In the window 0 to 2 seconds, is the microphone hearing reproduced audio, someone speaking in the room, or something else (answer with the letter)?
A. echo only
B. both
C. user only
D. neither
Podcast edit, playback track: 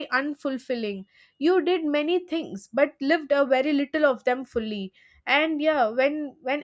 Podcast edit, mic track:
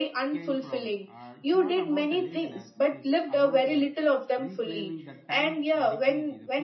B